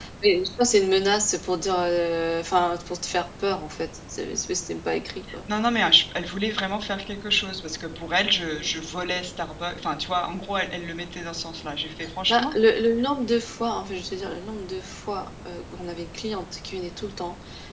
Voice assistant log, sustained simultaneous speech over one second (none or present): none